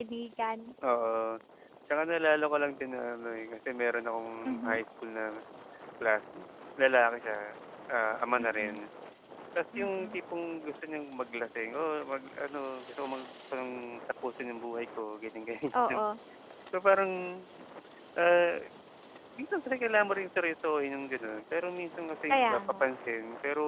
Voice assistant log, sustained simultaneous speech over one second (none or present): none